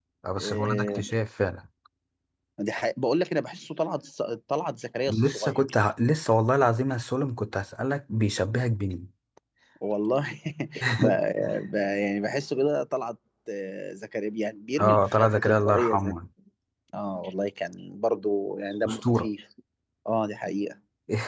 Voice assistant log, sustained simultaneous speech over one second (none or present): present